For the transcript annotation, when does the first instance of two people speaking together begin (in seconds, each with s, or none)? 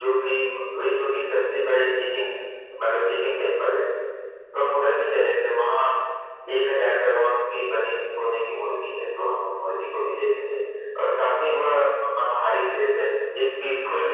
none